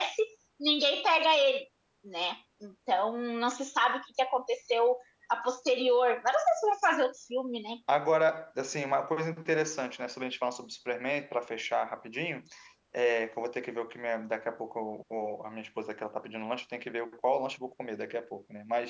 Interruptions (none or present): none